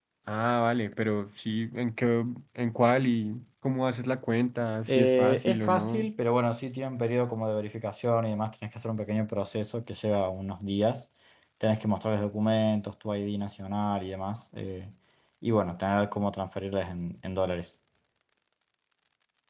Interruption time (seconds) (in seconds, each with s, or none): 4.9 s